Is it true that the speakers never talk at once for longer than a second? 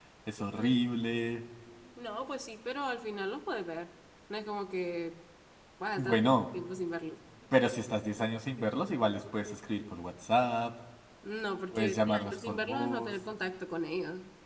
No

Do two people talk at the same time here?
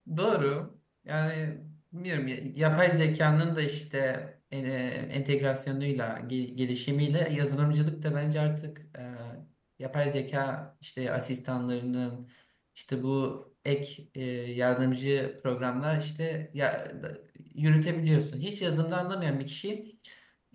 No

